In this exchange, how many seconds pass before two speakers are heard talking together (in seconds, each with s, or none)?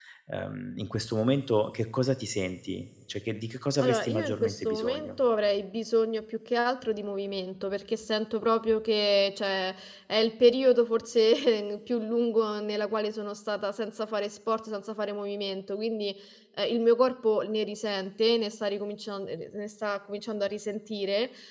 3.8 s